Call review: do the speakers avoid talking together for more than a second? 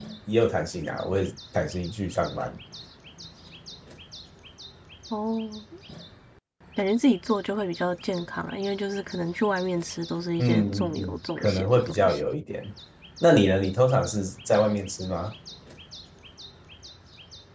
No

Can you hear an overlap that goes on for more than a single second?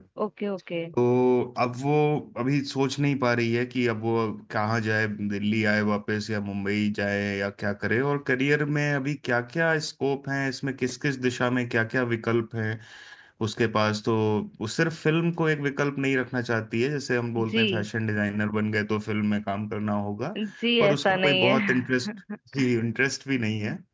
Yes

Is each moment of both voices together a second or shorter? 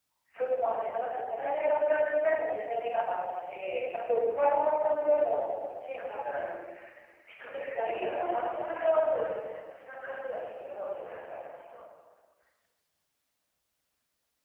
No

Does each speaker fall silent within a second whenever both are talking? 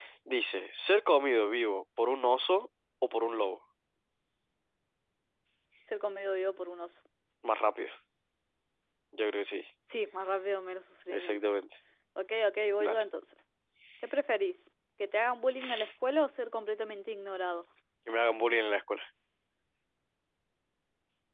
Yes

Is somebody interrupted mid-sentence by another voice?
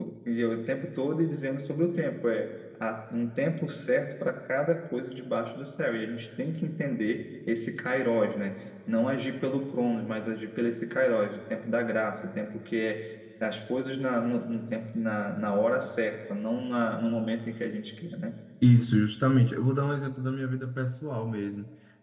No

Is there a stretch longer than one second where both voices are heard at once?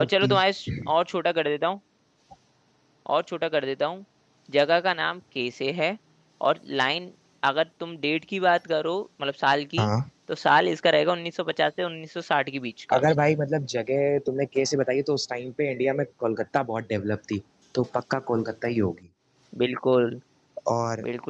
No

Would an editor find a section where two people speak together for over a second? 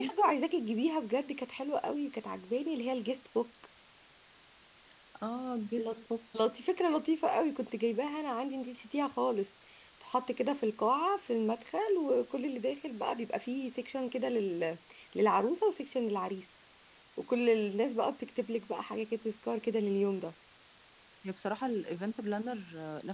No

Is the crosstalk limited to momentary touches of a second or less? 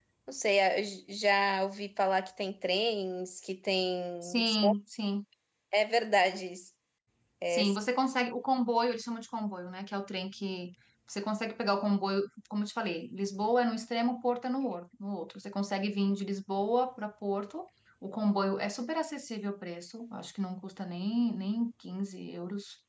Yes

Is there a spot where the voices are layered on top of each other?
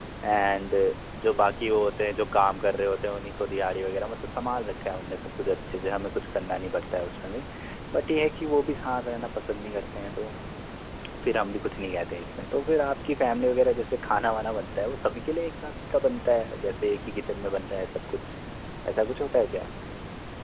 No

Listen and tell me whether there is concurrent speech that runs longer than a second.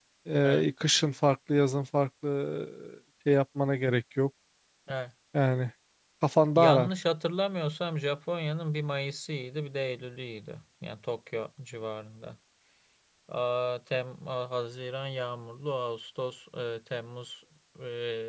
No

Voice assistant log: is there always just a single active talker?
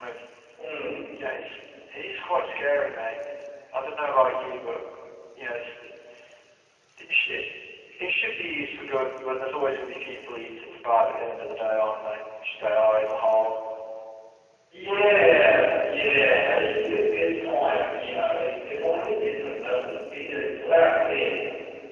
Yes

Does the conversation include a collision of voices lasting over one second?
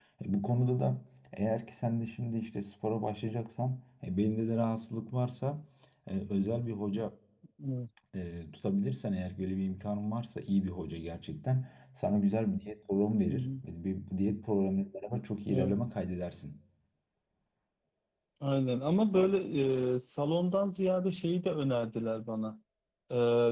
No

